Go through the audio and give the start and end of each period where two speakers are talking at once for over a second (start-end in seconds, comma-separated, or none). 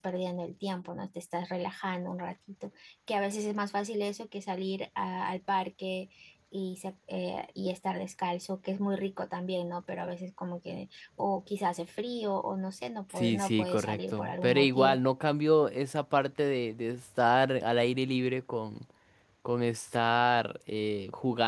13.1-15.0